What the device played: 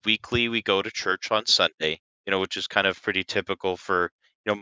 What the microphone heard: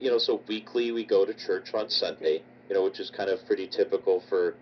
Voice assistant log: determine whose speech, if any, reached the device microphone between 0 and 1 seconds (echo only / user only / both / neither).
echo only